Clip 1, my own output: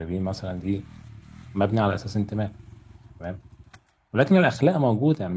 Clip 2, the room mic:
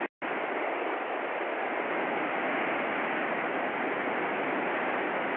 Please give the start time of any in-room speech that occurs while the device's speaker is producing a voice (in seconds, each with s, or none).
none